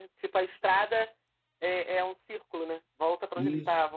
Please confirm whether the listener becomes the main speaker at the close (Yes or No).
Yes